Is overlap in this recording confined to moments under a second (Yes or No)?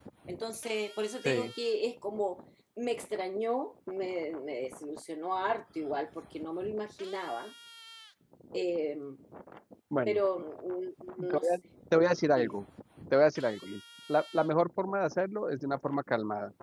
Yes